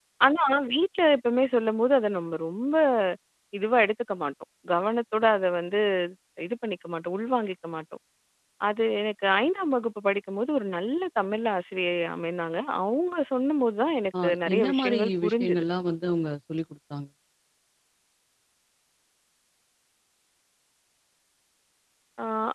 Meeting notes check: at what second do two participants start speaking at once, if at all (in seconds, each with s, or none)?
14.1 s